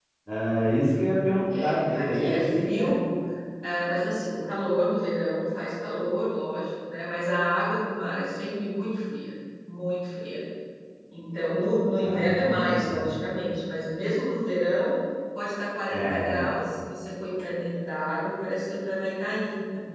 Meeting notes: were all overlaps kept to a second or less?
No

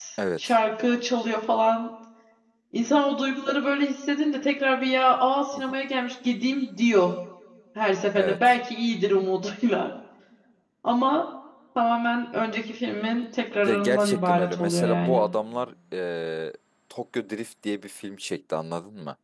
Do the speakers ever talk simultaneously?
Yes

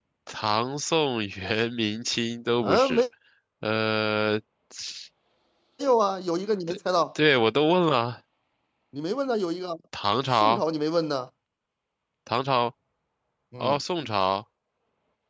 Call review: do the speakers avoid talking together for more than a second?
Yes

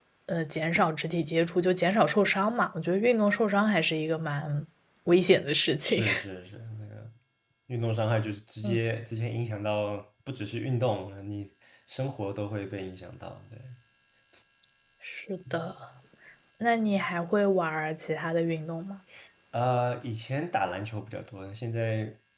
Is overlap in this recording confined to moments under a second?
Yes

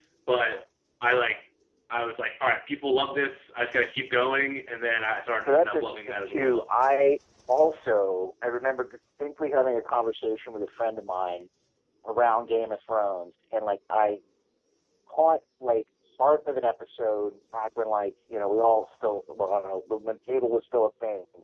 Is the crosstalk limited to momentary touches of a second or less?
No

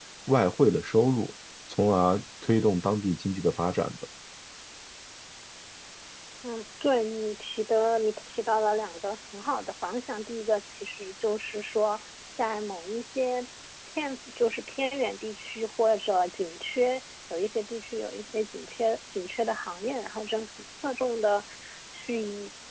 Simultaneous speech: No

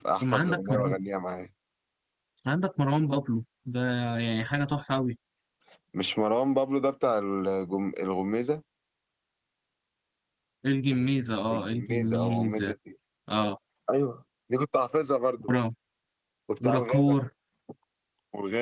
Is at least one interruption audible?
Yes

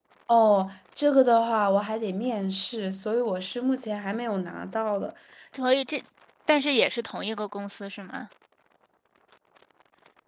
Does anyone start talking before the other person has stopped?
No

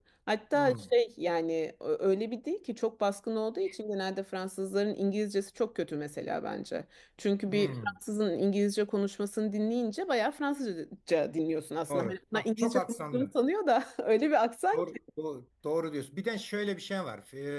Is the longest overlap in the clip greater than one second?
Yes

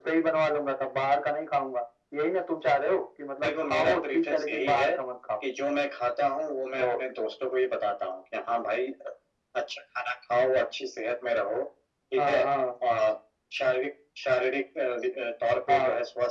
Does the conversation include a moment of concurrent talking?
Yes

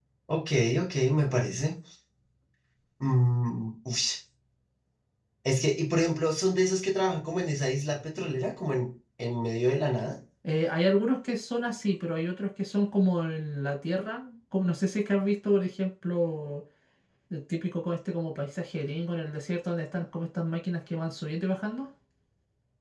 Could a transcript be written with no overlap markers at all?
Yes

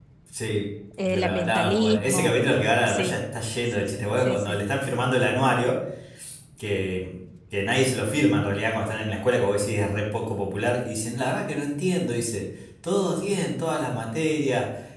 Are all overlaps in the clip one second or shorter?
No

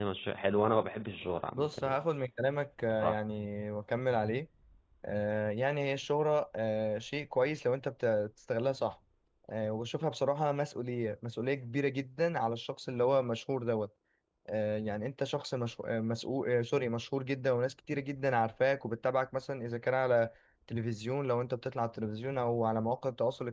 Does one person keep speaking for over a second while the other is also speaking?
No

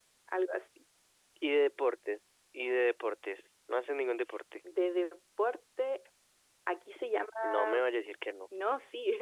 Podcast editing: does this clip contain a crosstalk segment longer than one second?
No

